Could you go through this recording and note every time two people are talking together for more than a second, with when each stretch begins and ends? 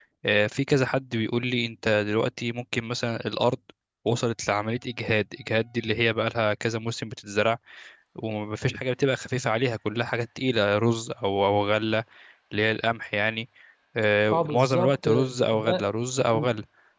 14.3-15.9

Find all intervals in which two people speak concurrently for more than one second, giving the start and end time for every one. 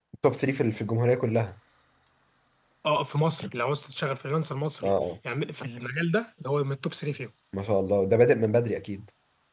none

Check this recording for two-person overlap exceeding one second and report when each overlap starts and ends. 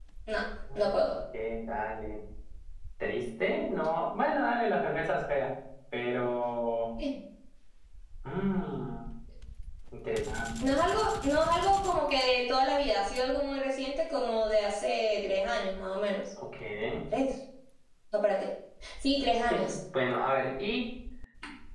none

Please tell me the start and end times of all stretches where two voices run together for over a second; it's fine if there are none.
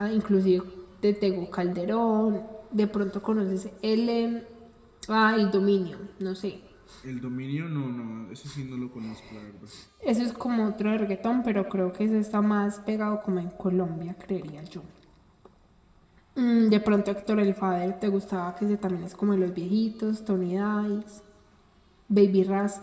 none

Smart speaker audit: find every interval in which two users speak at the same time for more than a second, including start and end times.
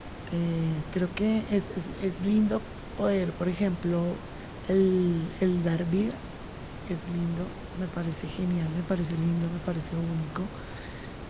none

